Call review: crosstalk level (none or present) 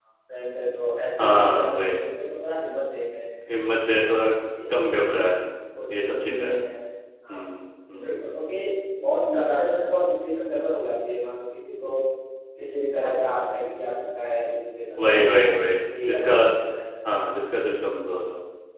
present